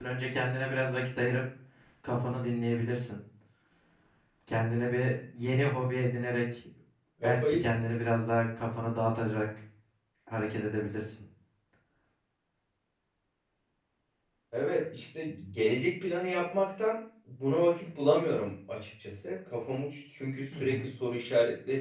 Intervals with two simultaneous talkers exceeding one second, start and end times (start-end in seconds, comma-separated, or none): none